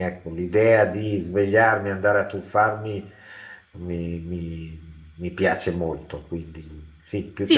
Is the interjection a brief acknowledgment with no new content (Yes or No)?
No